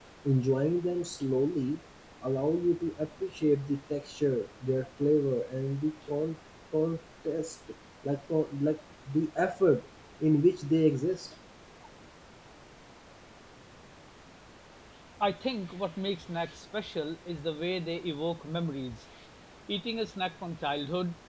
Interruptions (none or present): none